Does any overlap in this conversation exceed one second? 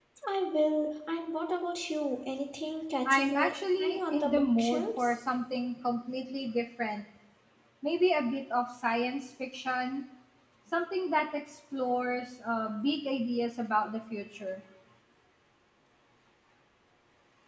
Yes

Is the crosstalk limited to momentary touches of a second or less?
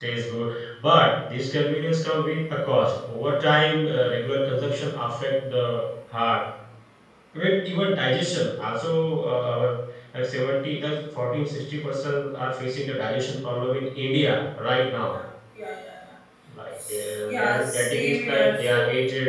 No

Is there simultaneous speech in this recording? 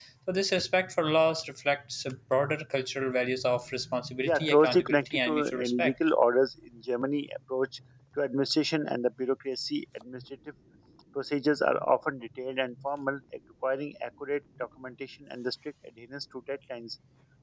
Yes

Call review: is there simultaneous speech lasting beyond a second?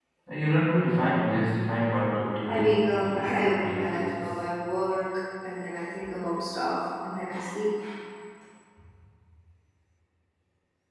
Yes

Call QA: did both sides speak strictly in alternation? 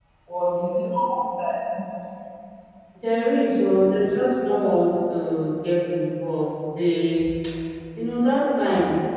Yes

